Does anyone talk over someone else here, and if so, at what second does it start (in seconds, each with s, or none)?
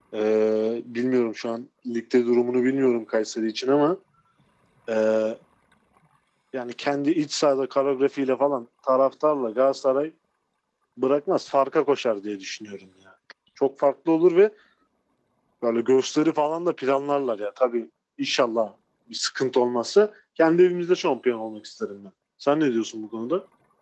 none